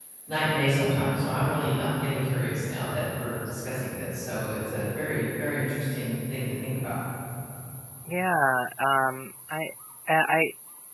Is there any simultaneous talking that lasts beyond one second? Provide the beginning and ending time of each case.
none

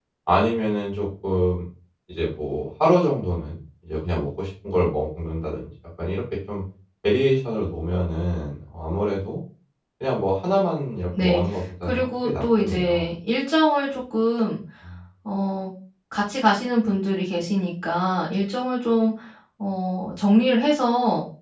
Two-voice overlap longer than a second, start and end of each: 11.8-13.1

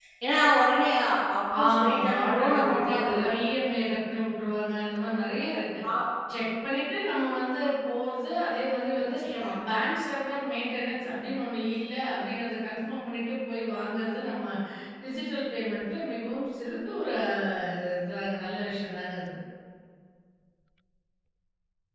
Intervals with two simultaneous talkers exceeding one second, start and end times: 1.6-3.2

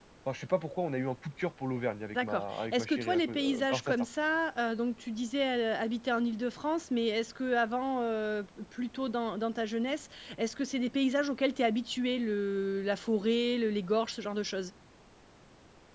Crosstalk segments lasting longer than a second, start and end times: 2.1-3.9

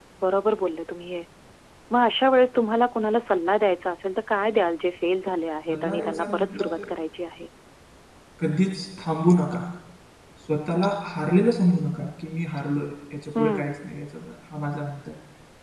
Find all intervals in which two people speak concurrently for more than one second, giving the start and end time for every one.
5.7-6.9

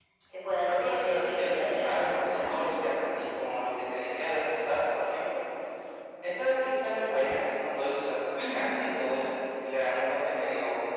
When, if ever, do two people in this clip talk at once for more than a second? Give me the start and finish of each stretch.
0.6-2.5

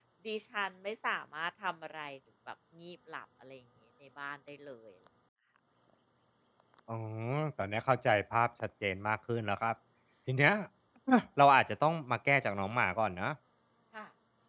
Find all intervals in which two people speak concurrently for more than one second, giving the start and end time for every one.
none

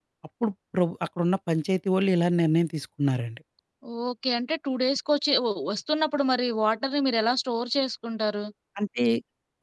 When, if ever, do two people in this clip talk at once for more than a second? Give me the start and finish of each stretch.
none

